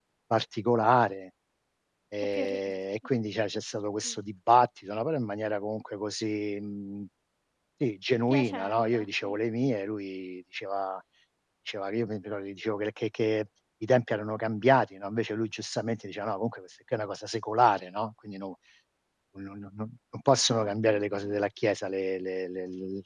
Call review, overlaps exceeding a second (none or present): present